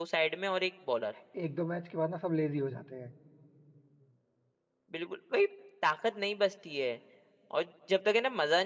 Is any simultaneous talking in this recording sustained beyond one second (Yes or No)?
No